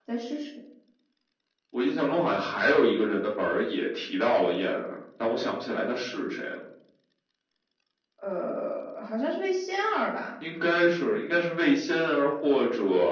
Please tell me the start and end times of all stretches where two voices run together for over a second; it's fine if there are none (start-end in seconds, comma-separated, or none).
none